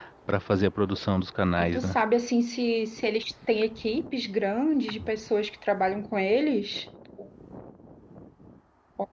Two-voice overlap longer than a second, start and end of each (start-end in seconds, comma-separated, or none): none